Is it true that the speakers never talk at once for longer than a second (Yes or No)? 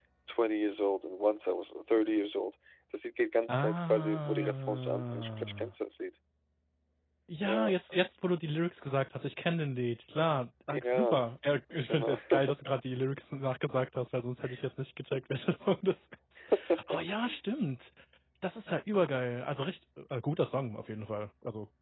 No